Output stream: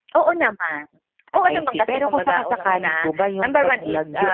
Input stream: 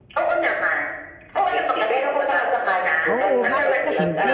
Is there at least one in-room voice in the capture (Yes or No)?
Yes